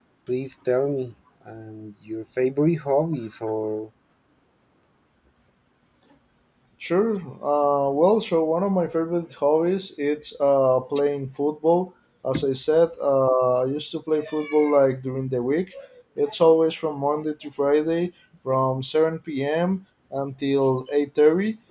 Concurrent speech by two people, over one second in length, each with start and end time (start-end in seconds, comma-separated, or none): none